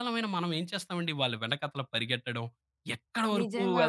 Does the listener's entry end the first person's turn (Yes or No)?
No